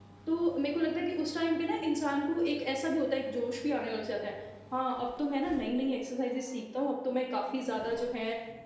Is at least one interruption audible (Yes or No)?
No